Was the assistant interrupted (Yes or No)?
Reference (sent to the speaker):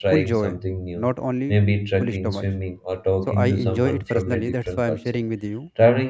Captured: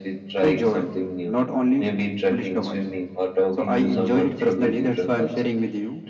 No